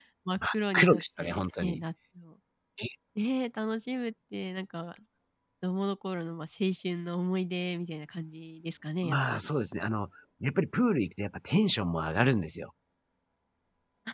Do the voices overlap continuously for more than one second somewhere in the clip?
Yes, from 0.5 s

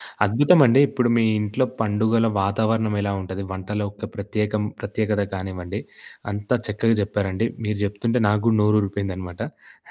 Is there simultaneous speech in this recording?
No

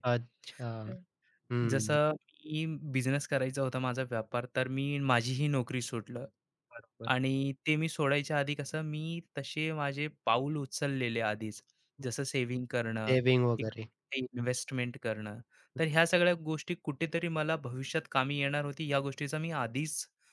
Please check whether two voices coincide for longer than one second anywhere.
No

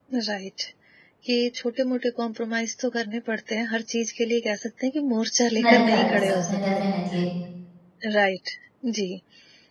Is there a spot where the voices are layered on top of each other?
Yes, from 5.6 s

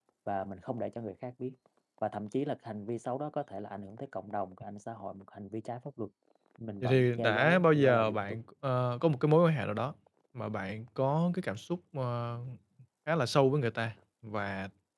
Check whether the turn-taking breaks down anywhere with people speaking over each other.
Yes, from 6.8 s

